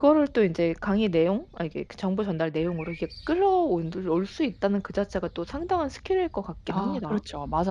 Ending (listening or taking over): taking over